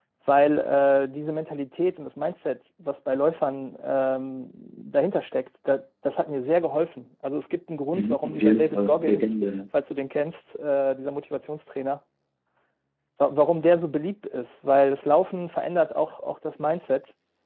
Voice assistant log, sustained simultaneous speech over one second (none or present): present